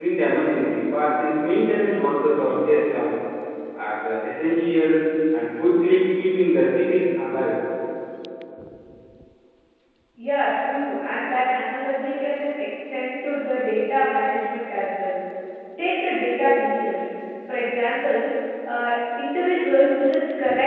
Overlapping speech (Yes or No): No